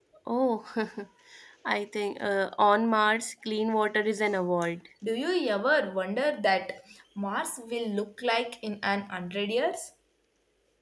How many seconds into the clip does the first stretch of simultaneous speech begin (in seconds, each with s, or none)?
none